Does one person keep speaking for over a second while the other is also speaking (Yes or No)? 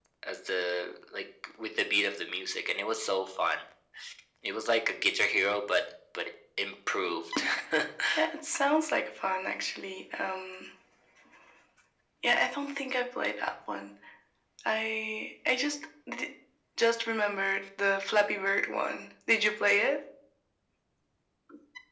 No